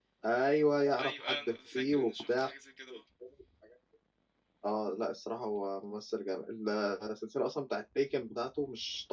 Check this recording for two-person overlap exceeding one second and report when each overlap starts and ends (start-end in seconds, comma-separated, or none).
1.0-2.5